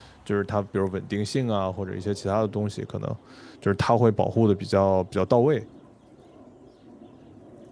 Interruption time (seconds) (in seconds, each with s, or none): none